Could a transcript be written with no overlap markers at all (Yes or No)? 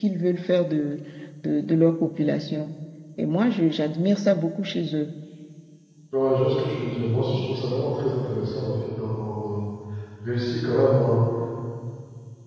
Yes